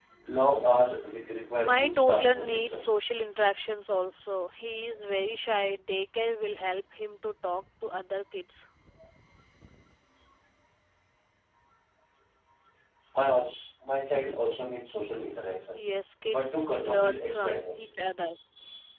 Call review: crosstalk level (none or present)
present